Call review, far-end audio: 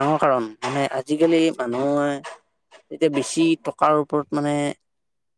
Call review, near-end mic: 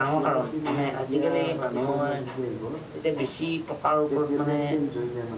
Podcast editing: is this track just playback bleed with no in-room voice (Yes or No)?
No